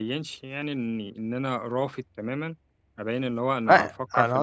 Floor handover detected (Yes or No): Yes